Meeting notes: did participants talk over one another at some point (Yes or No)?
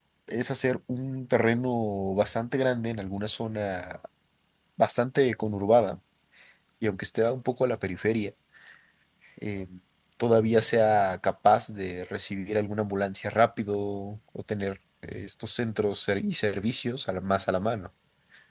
No